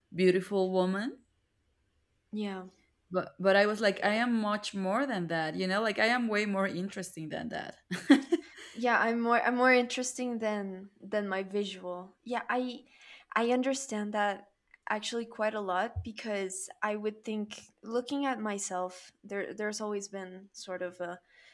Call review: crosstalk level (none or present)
none